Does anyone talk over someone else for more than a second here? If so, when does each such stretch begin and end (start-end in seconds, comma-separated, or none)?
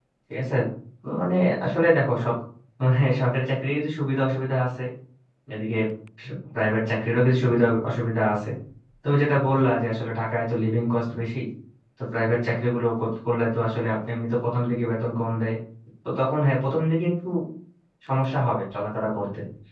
none